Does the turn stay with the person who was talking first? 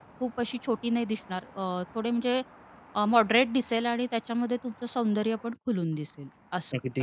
No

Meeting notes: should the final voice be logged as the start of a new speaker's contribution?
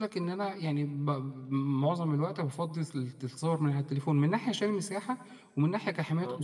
No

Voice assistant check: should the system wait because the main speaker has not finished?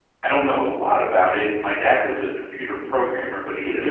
Yes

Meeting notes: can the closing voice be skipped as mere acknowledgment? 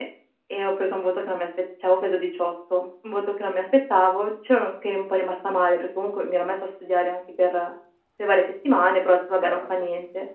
Yes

